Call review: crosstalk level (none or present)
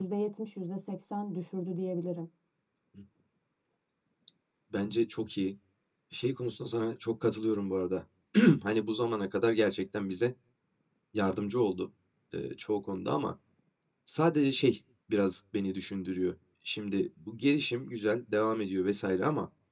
none